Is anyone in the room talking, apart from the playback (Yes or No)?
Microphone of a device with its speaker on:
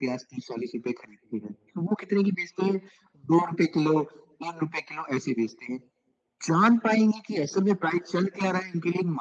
No